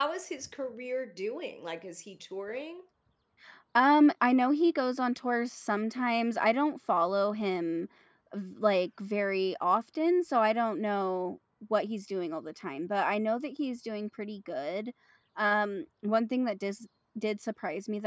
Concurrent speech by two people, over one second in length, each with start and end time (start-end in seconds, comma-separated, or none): none